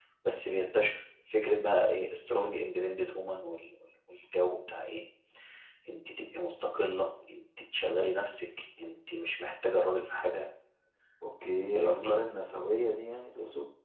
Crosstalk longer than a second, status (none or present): none